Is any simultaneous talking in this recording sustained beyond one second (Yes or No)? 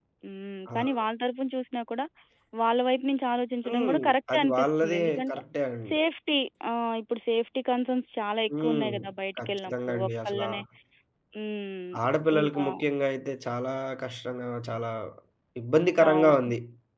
Yes